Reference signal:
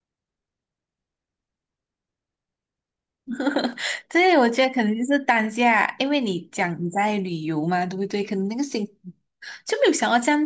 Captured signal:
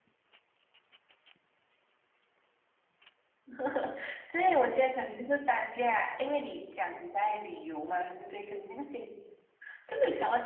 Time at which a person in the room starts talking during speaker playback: none

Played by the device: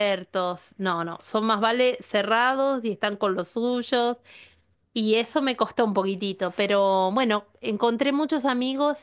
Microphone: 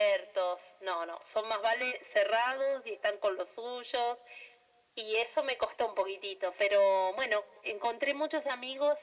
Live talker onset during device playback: none

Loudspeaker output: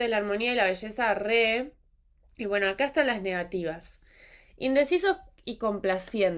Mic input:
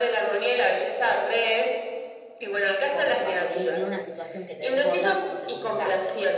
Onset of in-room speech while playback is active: 2.9 s

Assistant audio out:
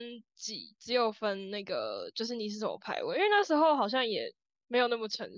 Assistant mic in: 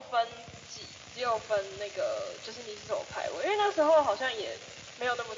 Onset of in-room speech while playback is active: none

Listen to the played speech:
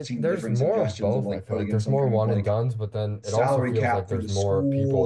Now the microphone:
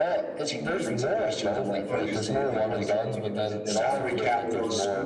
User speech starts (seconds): 1.9 s

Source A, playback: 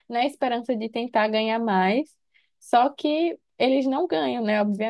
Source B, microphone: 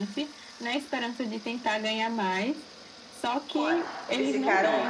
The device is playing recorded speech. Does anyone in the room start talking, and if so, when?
3.5 s

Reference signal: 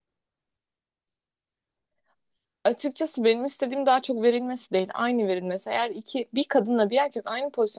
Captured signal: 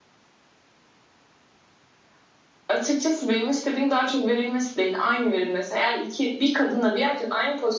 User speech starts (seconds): none

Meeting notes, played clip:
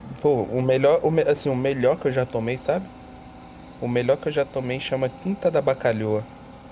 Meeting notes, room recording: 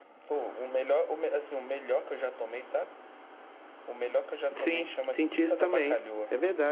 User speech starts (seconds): 4.6 s

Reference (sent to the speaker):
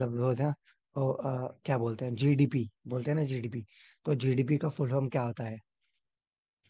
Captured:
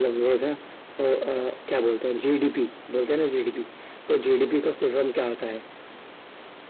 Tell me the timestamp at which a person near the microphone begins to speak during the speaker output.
none

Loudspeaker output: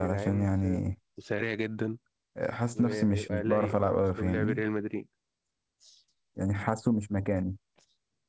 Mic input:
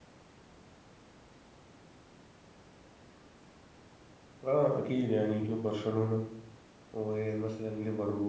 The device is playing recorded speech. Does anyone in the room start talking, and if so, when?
4.4 s

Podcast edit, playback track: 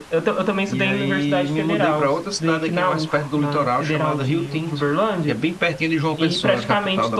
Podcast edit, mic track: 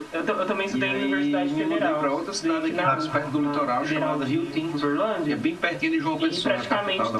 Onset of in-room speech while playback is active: 2.8 s

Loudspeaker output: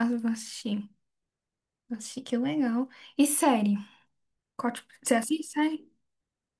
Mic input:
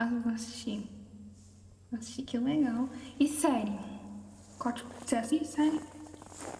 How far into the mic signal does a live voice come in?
none

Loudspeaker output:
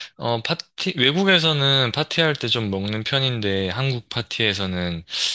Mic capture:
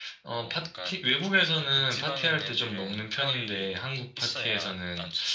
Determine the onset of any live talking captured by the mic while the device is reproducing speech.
0.3 s

